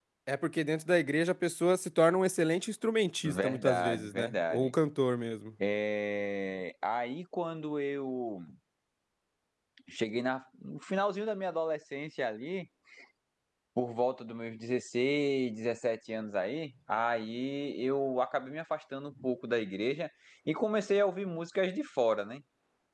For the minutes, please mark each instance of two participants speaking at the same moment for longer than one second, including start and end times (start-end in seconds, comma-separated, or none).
3.3-4.7